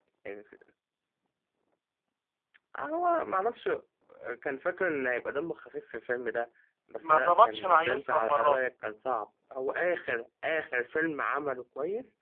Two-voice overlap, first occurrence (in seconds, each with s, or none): 7.0 s